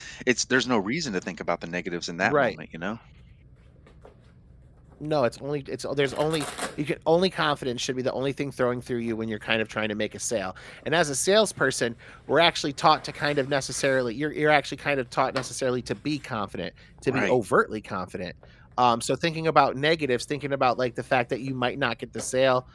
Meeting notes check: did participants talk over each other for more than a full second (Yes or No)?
No